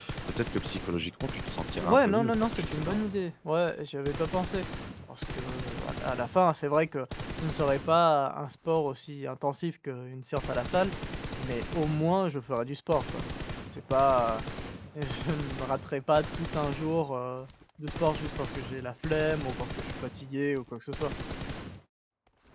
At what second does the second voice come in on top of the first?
1.8 s

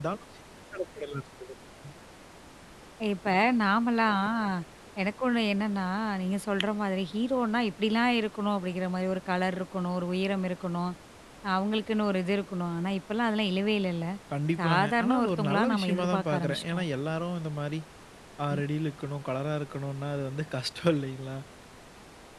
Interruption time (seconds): 14.6 s

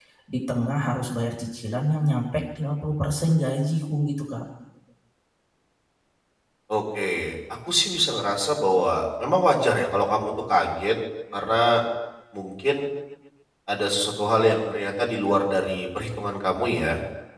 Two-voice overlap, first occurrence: none

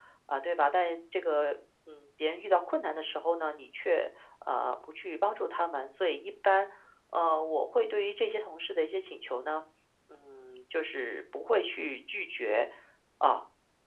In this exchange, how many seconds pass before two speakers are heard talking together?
none

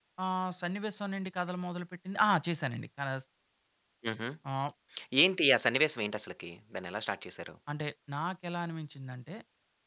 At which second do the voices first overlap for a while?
none

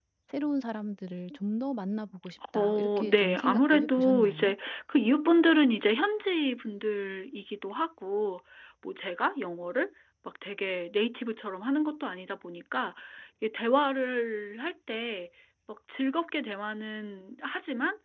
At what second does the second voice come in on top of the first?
2.6 s

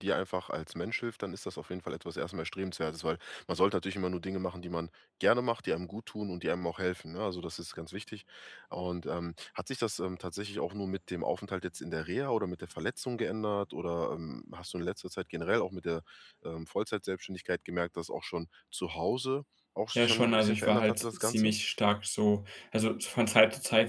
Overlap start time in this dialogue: 19.9 s

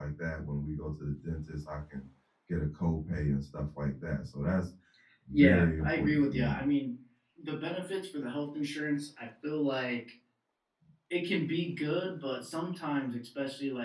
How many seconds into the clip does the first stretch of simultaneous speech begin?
5.3 s

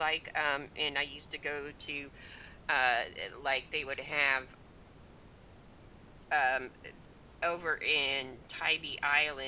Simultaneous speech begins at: none

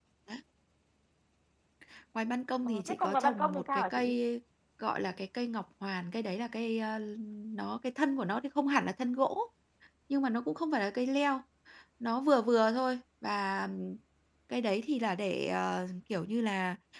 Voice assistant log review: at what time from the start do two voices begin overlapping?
2.6 s

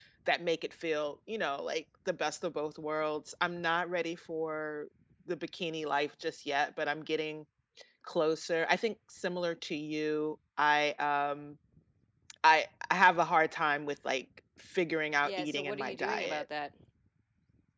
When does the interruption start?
15.2 s

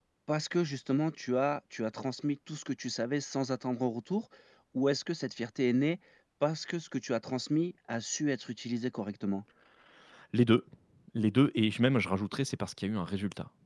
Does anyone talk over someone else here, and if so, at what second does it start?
none

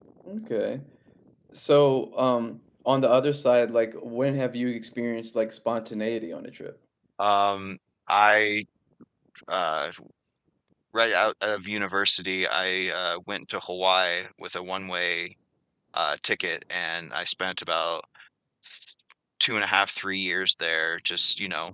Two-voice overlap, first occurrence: none

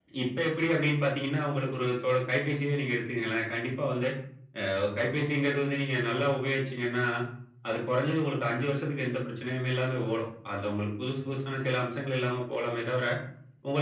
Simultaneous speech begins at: none

